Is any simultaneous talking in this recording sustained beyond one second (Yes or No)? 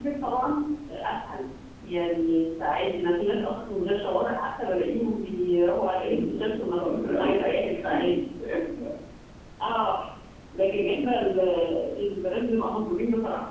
Yes